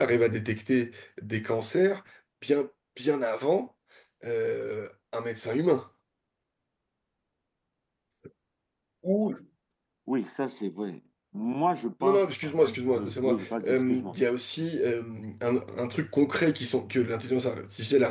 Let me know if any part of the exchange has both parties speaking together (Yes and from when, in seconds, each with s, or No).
Yes, from 12.0 s